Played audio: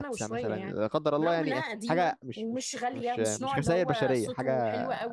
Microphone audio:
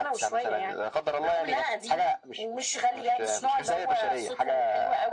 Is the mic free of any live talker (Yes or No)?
Yes